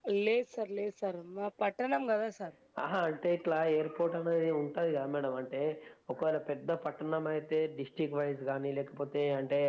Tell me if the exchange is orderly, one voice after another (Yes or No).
Yes